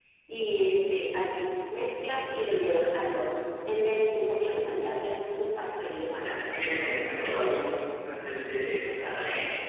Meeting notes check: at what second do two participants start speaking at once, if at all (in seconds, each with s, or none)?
6.2 s